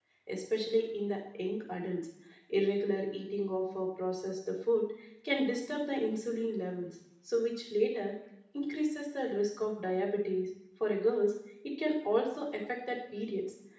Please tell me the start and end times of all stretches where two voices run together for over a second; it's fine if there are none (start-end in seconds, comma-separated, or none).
none